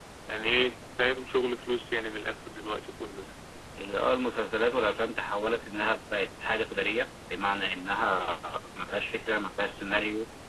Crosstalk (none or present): none